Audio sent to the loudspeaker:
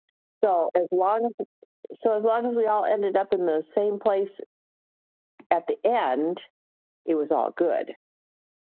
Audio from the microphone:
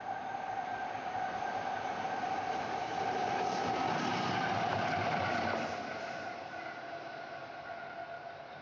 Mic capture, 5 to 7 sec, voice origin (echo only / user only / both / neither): neither